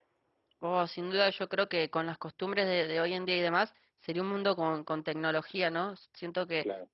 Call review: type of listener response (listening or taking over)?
listening